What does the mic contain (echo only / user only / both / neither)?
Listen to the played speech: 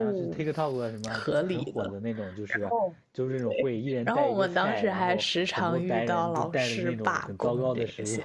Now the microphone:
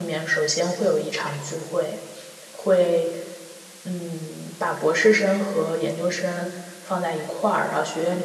user only